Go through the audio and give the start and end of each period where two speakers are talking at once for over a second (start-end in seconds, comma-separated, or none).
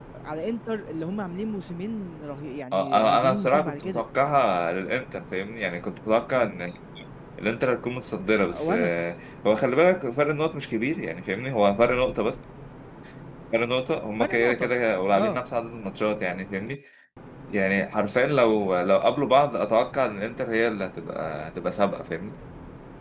2.7-4.0